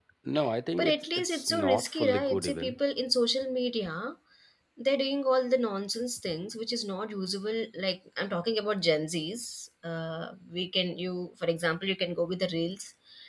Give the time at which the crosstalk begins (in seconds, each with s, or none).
0.8 s